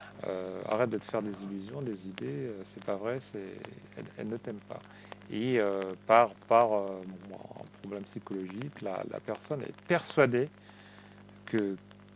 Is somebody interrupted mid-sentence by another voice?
No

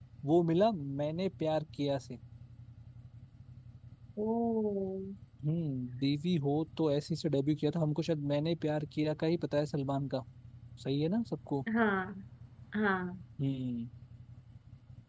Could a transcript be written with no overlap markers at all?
Yes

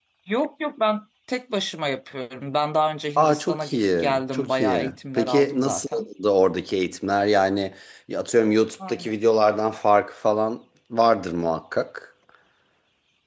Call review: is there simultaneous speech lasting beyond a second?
Yes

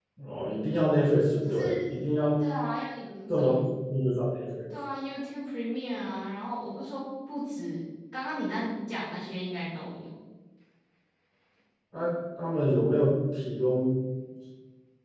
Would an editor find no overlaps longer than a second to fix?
Yes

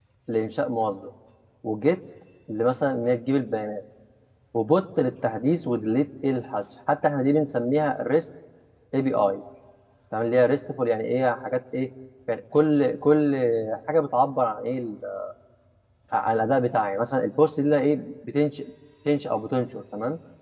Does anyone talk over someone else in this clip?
No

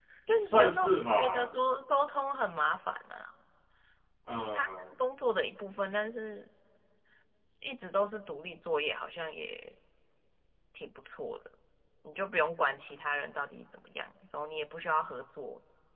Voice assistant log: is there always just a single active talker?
No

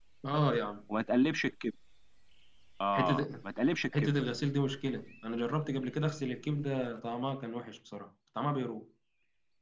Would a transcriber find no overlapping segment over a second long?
Yes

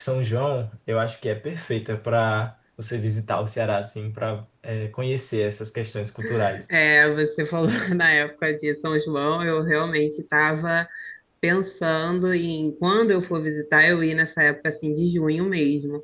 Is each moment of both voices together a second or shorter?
Yes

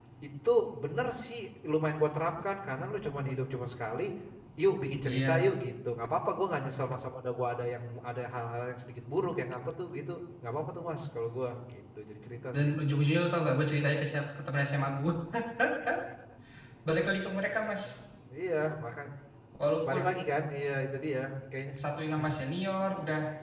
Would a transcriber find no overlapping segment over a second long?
Yes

